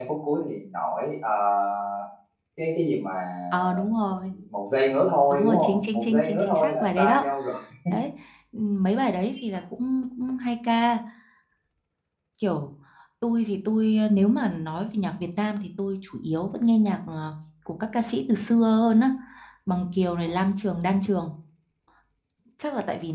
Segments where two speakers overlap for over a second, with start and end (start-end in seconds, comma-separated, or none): 5.3-7.3